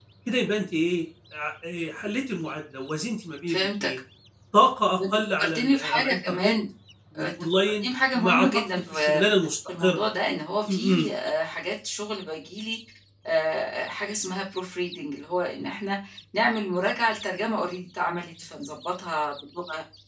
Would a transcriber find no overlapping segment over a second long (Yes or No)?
No